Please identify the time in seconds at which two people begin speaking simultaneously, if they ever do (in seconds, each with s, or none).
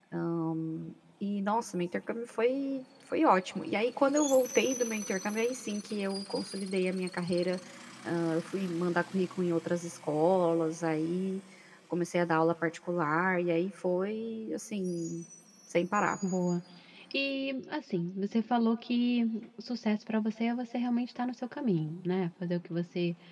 none